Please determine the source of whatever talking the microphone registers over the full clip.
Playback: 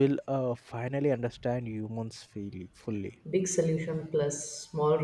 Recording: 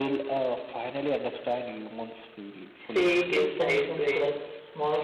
both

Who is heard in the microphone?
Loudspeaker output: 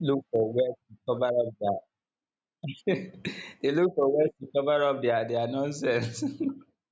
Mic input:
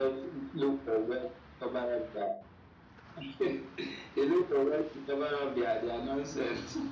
echo only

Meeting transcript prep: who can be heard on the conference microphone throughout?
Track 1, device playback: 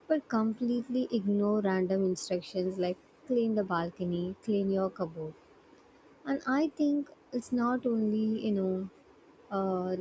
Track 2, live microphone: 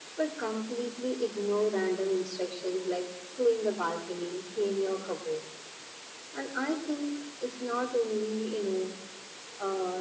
echo only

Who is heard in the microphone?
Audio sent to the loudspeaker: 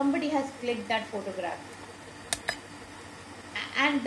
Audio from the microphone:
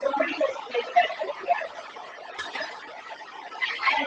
echo only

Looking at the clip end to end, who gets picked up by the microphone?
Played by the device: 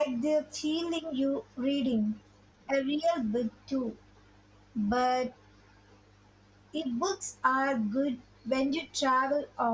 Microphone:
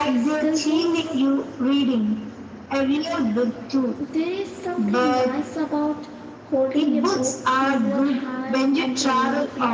both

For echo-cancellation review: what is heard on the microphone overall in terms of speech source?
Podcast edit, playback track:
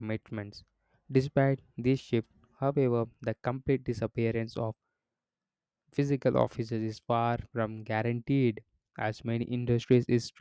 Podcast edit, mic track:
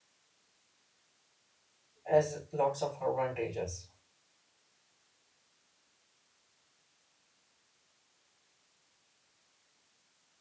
user only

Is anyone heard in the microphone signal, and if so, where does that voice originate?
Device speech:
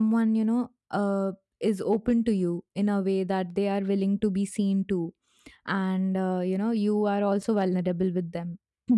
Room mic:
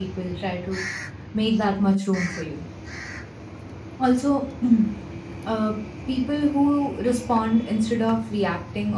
user only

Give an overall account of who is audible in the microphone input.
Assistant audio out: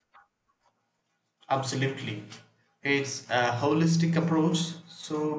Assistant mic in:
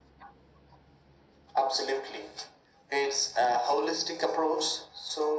echo only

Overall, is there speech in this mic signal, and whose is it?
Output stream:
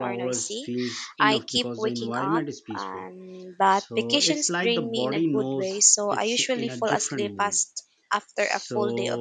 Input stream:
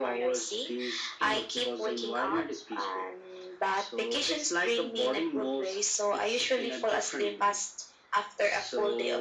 echo only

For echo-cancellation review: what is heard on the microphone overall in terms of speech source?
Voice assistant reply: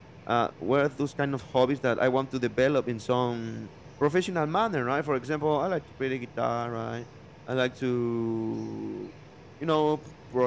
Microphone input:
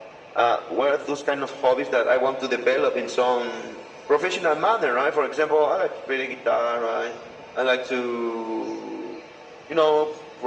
echo only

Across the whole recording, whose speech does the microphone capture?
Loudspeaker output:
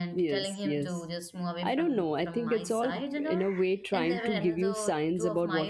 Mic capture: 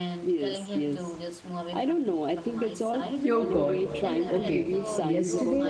both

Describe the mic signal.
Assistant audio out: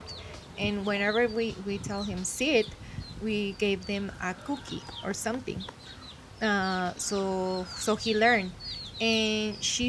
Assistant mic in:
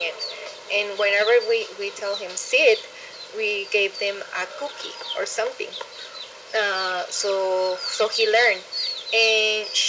echo only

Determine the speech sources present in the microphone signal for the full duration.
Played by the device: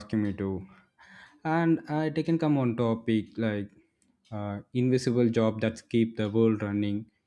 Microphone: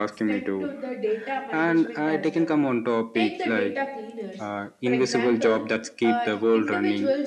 both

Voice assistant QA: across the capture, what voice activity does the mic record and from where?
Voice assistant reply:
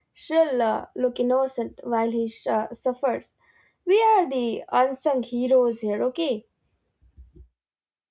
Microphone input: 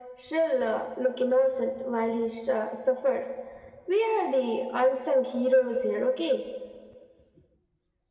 echo only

